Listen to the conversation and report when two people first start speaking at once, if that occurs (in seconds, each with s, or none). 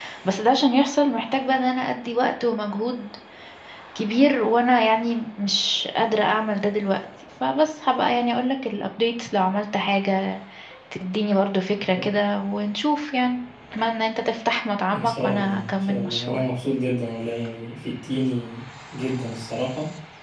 14.9 s